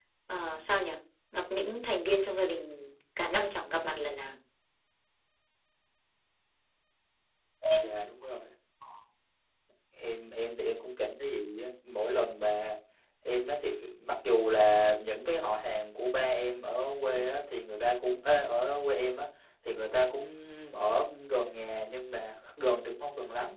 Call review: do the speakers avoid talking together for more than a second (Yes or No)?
Yes